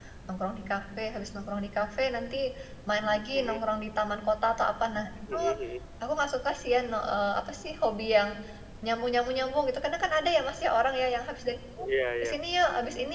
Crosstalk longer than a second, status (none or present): none